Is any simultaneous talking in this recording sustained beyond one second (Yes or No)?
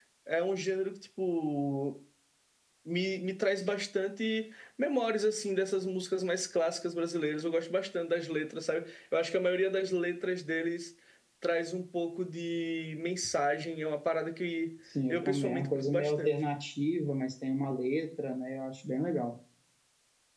Yes